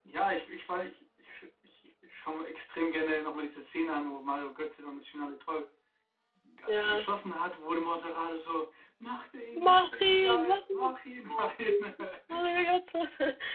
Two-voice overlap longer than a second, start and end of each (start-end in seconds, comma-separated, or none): 9.7-10.9